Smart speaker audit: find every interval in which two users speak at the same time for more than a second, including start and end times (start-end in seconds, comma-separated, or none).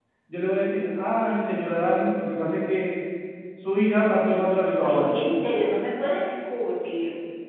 none